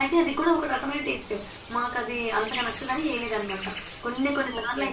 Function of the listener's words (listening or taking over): listening